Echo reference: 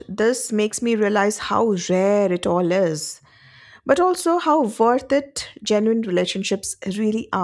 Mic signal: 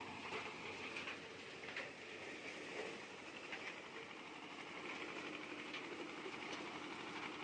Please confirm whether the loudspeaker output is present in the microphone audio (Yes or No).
No